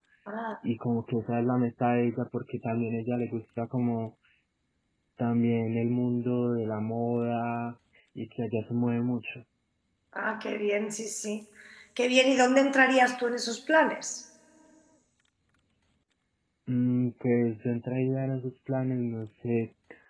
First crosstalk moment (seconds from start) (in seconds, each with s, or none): none